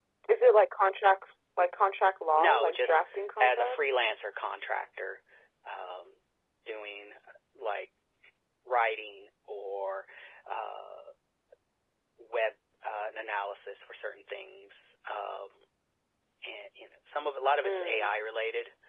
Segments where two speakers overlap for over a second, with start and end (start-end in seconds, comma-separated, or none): 2.3-3.9